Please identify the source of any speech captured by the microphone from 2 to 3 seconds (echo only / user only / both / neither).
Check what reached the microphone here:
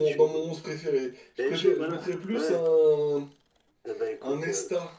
both